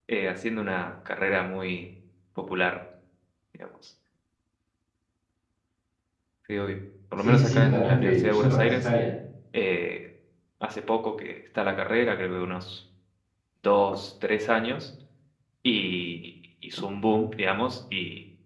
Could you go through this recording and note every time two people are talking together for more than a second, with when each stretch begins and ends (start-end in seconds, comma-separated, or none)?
7.2-8.8